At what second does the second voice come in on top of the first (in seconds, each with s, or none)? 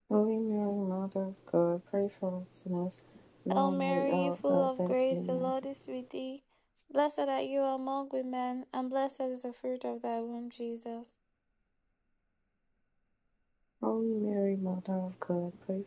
3.5 s